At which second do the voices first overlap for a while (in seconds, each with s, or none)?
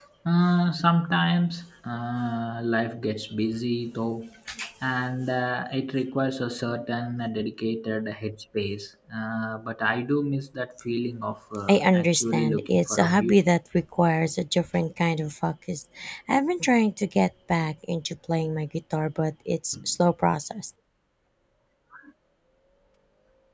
11.7 s